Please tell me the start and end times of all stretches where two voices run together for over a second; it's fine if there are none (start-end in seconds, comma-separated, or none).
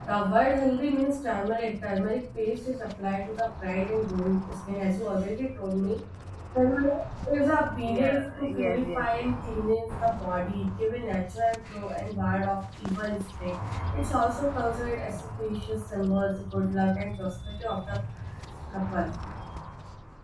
7.8-9.3